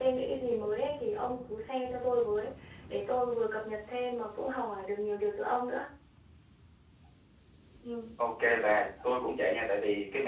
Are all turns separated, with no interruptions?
Yes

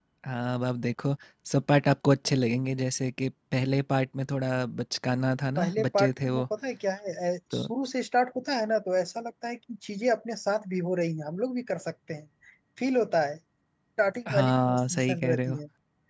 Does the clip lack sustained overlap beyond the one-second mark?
No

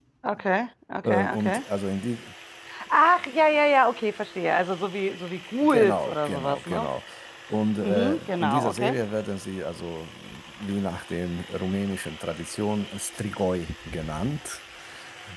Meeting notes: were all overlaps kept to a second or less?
No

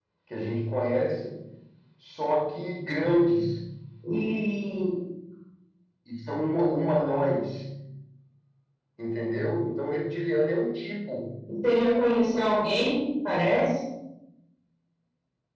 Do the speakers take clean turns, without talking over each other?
Yes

